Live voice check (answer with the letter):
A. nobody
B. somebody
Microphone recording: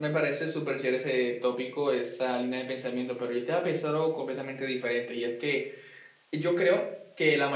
B